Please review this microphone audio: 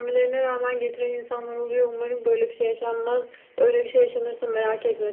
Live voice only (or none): none